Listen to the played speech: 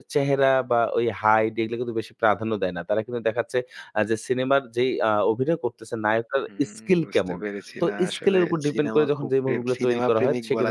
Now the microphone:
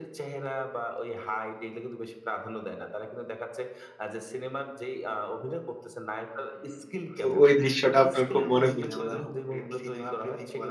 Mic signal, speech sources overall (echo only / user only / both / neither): both